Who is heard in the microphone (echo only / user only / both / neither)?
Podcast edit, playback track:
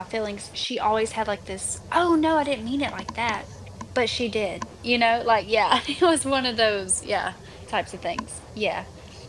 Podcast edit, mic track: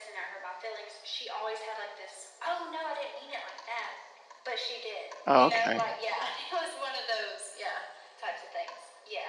both